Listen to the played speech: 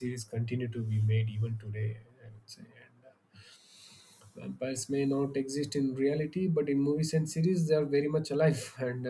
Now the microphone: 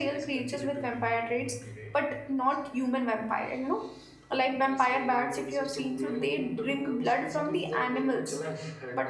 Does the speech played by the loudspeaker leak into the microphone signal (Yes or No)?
Yes